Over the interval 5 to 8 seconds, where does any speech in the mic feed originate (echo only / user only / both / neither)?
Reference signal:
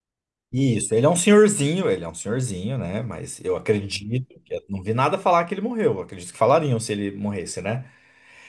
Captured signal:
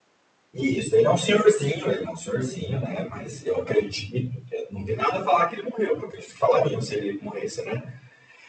echo only